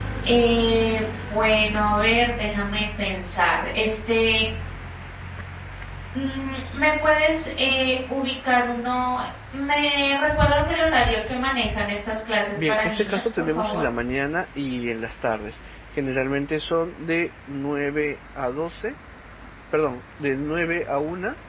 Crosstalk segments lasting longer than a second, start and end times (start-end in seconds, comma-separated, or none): 12.6-13.8